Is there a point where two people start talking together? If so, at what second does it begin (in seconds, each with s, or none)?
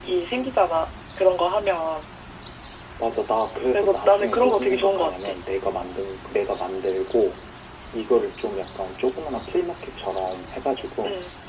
3.7 s